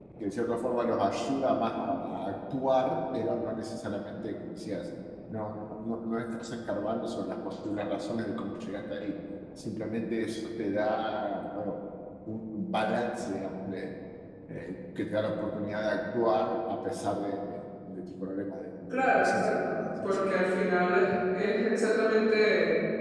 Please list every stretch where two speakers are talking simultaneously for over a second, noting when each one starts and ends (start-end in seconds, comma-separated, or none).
18.9-20.2